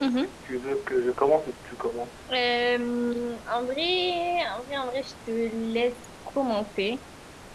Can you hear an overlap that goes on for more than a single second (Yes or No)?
No